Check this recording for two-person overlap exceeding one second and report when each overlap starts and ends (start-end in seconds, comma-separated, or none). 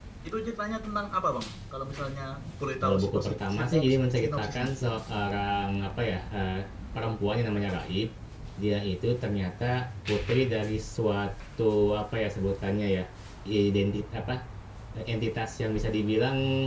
2.8-4.7